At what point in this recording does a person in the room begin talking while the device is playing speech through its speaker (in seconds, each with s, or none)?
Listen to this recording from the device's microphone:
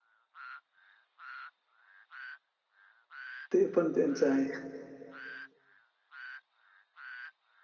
3.5 s